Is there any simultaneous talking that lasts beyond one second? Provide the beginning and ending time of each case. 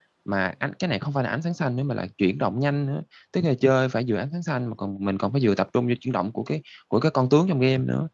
none

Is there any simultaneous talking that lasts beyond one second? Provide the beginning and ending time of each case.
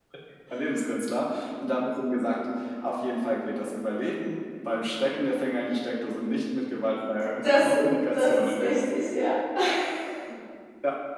7.4-8.8

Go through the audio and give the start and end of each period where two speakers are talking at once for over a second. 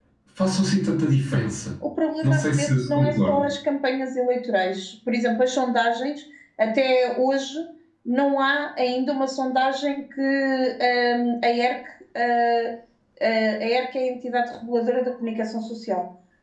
2.2-3.5

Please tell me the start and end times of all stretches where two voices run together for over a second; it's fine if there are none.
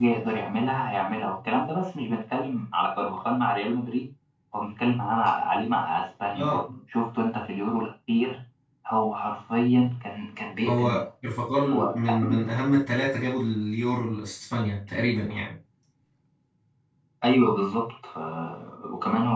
none

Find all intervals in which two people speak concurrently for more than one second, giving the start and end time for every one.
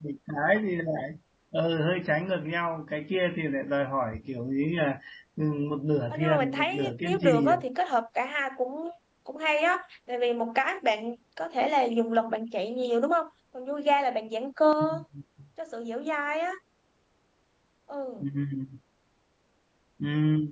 6.1-7.5

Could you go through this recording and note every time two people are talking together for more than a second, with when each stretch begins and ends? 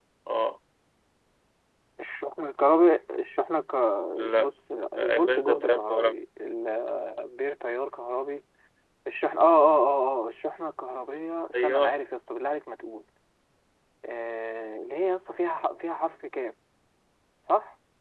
4.9-6.1

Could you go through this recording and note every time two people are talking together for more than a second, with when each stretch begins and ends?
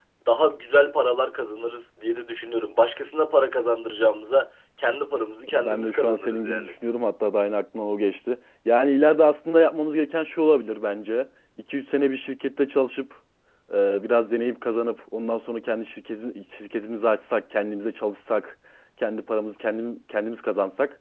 5.5-6.7

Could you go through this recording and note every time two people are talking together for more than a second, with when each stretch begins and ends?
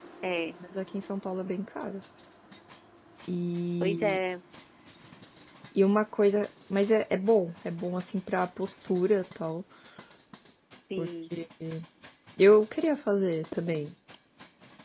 none

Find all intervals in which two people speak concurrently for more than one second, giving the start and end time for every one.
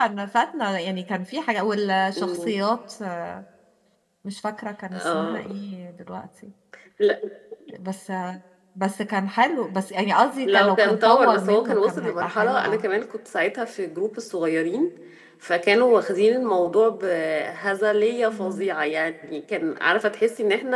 10.4-12.8

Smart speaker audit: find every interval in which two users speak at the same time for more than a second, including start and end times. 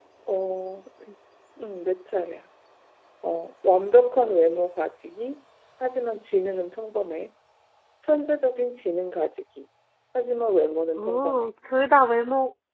none

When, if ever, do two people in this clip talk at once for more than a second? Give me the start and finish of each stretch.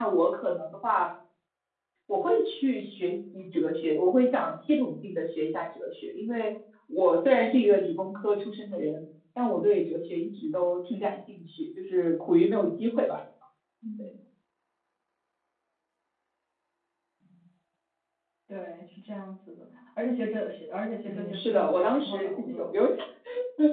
21.1-22.7

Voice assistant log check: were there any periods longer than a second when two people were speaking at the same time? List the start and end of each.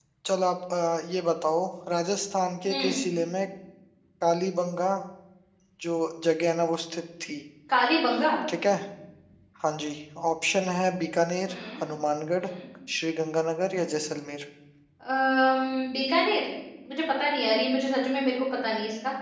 none

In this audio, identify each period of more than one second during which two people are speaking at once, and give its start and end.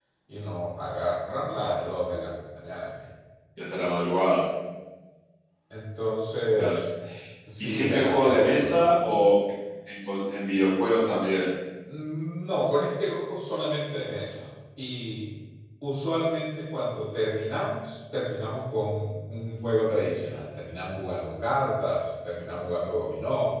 7.6-8.8

